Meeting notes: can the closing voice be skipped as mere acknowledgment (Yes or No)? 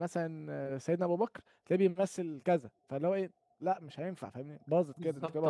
No